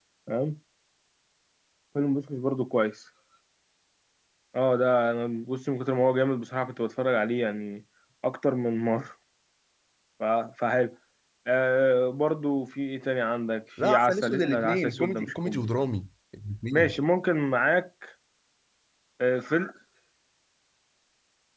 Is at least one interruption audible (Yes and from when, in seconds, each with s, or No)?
Yes, from 13.8 s